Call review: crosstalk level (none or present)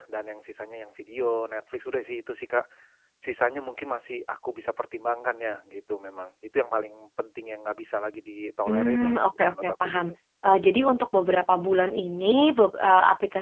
present